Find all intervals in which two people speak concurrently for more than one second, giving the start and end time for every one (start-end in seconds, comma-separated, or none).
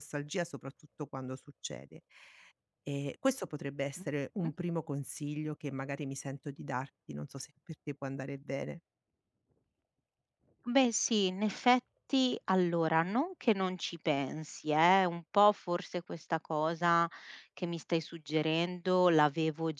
none